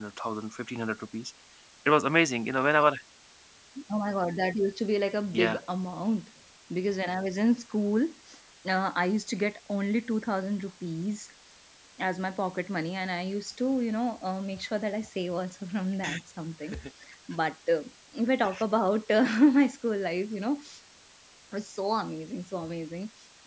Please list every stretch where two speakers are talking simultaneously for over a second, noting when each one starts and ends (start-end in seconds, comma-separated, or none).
none